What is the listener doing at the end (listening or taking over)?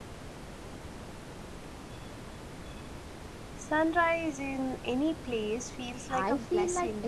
taking over